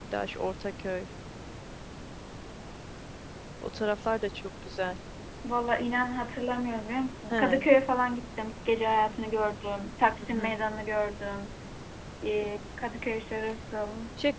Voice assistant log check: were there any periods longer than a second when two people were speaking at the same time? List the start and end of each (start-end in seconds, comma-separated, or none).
none